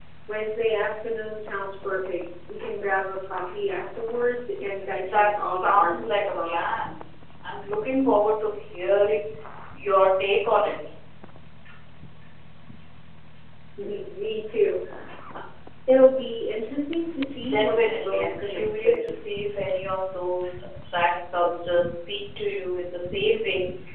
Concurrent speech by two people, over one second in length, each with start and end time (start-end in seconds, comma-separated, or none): 5.0-6.6, 17.5-19.1